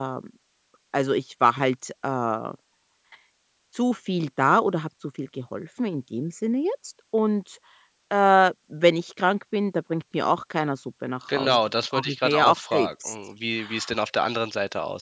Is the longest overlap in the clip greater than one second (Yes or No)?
Yes